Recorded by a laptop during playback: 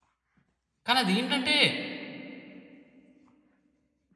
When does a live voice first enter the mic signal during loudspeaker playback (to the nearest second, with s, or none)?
1 s